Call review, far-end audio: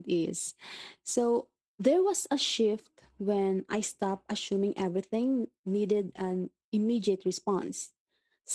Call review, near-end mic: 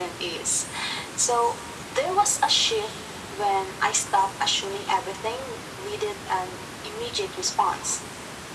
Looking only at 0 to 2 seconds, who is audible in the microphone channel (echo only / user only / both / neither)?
echo only